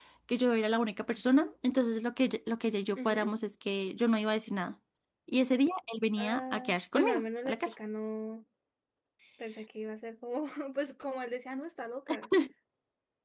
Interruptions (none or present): present